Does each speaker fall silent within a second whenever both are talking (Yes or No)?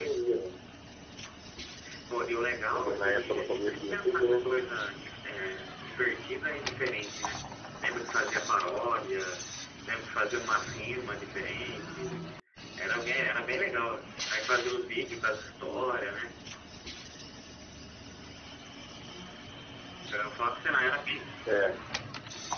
No